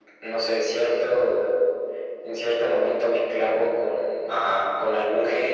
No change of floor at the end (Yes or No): Yes